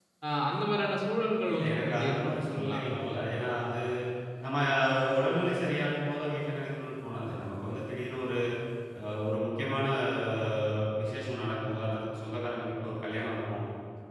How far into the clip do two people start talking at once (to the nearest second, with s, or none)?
1 s